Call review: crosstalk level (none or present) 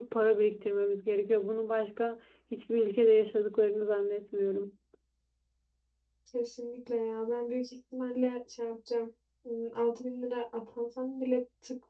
none